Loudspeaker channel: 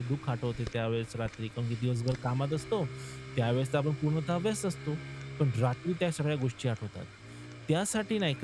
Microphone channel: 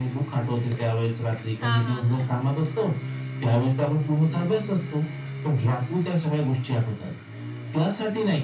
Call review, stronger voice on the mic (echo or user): echo